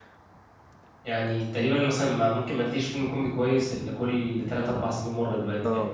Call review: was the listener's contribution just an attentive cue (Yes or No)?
No